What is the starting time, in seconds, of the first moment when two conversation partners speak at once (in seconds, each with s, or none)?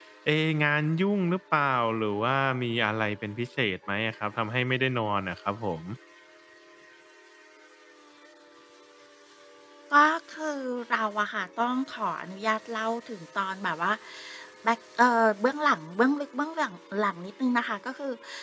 none